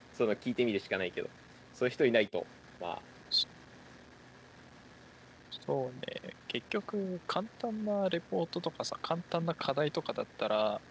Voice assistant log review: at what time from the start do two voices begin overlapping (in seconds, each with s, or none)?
none